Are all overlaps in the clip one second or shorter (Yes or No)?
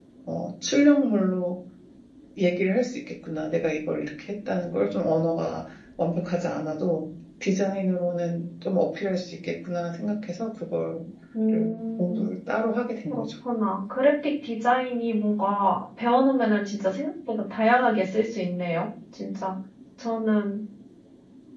Yes